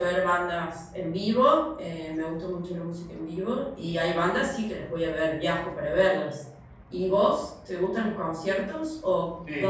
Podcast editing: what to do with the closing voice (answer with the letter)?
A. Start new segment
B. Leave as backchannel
A